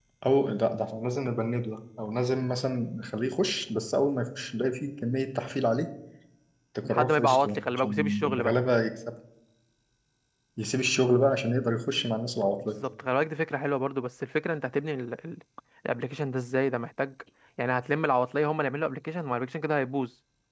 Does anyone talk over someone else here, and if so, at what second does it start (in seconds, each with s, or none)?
6.8 s